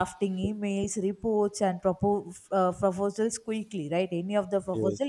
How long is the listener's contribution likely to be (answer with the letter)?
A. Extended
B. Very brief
B